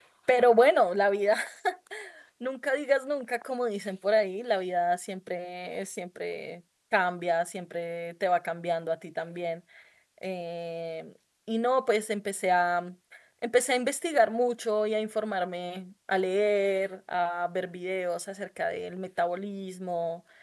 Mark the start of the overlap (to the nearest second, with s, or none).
none